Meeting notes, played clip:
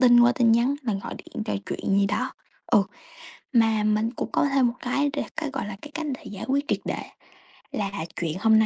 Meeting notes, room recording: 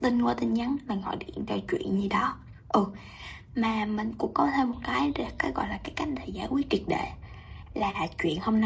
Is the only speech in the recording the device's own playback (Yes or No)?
Yes